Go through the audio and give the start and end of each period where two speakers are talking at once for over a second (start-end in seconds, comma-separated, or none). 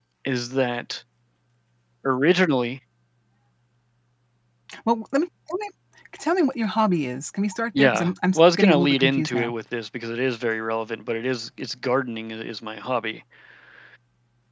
7.8-9.5